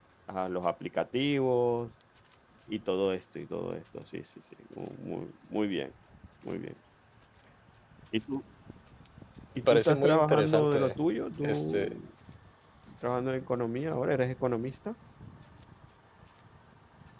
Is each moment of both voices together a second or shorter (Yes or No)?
No